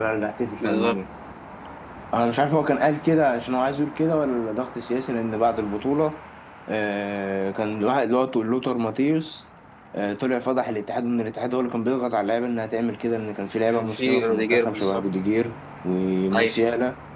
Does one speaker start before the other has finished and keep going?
Yes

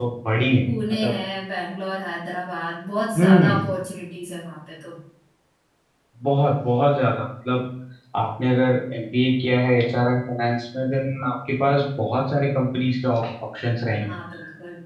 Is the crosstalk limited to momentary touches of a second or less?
Yes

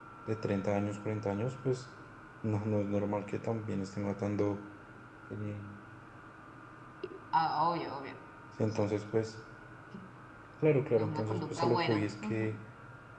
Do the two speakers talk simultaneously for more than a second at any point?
Yes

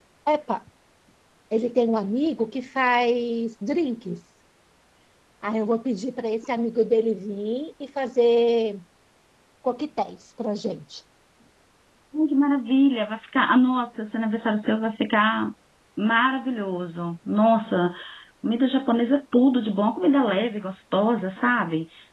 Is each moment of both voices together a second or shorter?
Yes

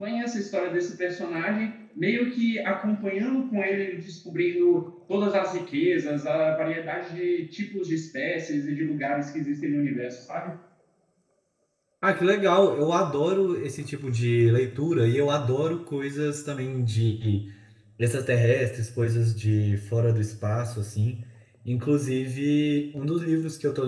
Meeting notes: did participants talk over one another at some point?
No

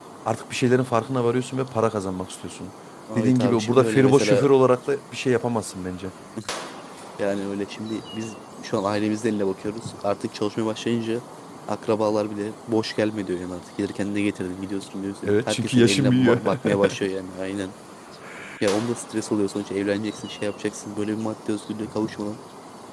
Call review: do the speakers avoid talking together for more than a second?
No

